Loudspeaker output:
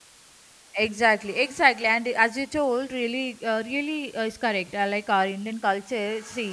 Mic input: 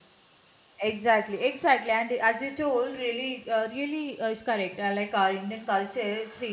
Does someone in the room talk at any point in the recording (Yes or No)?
No